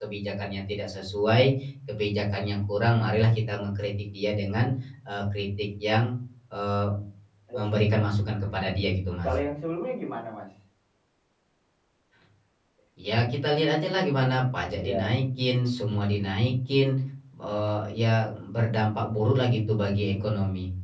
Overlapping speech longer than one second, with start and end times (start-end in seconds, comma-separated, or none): none